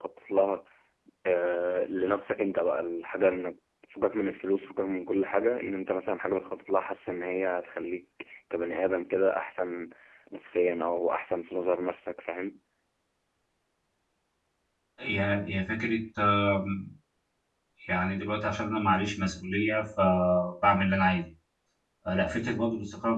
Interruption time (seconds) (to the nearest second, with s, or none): none